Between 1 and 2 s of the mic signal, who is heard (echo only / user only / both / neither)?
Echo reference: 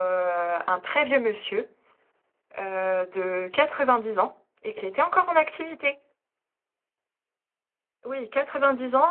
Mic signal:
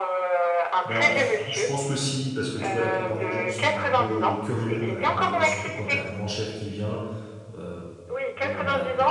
both